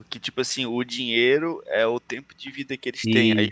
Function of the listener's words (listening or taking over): listening